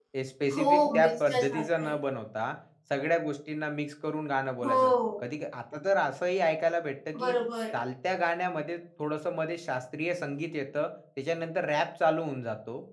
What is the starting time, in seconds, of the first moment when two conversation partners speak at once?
0.5 s

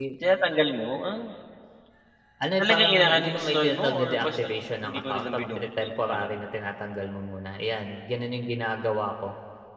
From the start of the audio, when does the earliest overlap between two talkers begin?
2.6 s

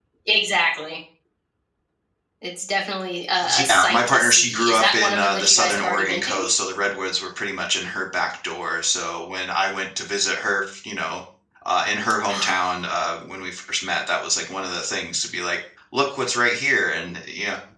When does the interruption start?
3.4 s

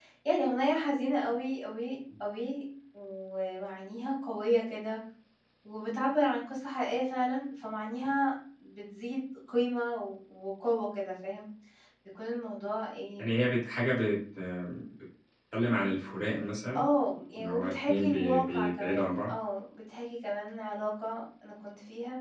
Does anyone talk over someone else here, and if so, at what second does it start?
17.4 s

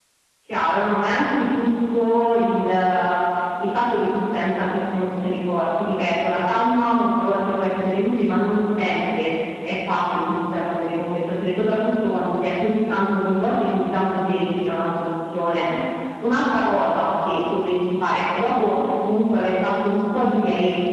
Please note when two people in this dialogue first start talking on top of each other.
none

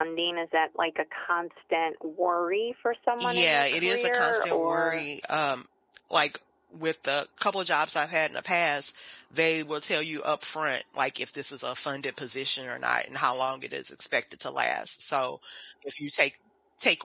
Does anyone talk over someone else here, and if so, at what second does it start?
3.2 s

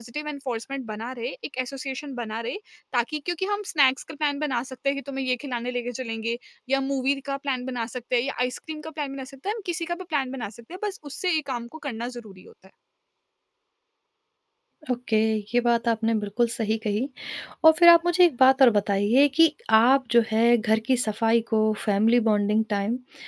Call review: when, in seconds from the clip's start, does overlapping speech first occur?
none

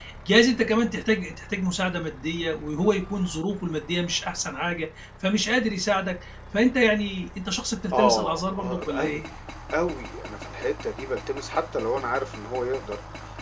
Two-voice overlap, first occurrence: 7.9 s

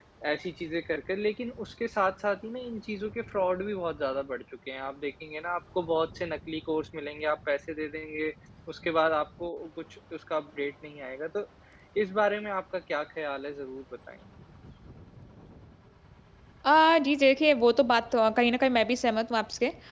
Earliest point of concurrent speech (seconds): none

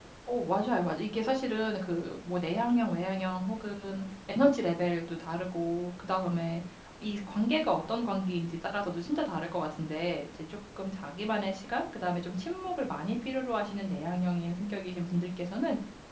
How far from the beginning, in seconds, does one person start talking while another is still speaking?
none

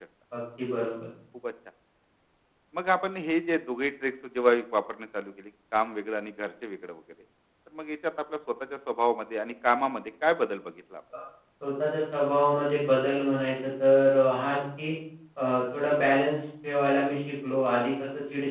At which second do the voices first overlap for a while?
none

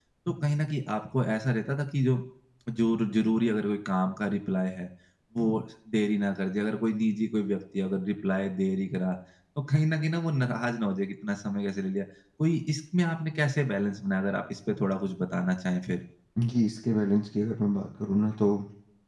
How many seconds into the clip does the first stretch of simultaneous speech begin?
none

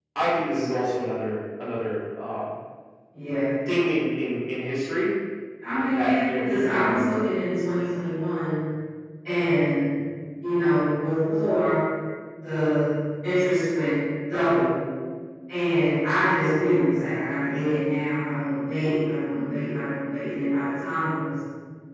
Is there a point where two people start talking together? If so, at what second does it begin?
6.0 s

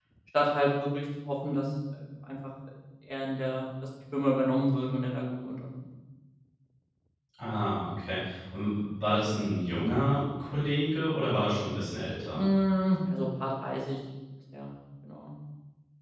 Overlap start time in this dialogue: none

